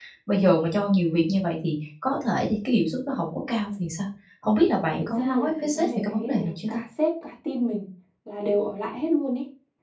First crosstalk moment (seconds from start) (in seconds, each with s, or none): 5.1 s